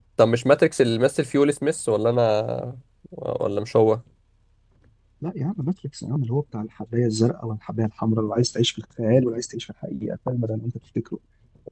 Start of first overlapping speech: none

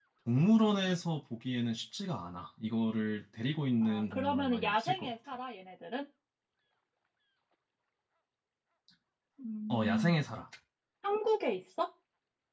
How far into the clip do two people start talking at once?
3.8 s

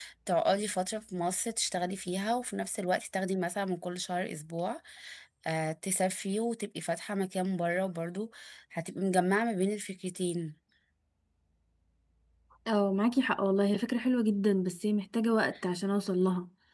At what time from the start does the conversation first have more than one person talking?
none

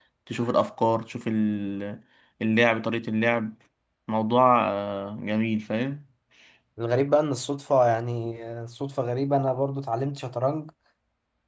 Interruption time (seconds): none

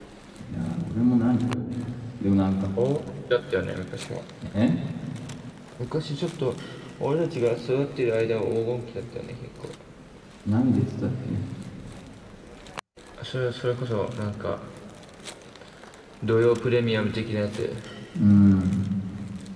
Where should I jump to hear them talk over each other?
none

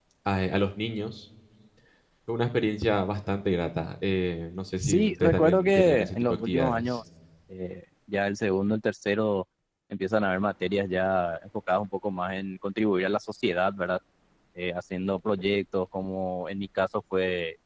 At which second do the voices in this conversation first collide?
4.8 s

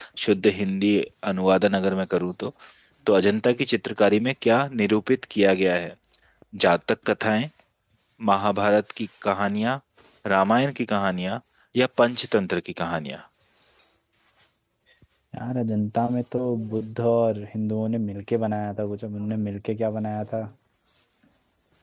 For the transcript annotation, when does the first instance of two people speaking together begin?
none

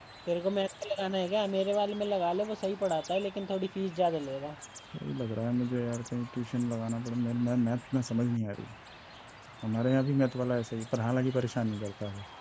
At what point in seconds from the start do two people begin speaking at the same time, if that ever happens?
none

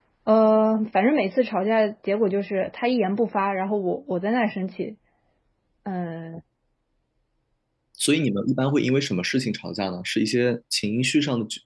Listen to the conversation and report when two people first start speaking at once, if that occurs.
none

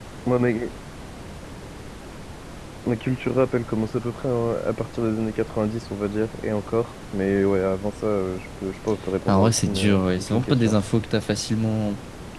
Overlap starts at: 9.3 s

